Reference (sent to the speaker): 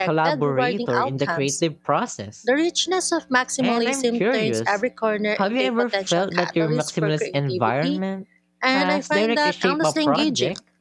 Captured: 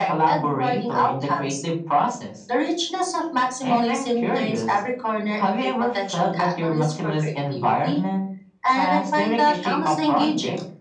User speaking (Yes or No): No